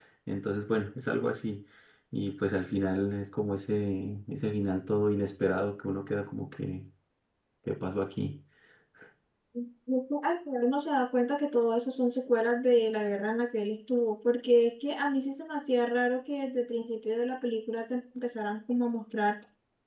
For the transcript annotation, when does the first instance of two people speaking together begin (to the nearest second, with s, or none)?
none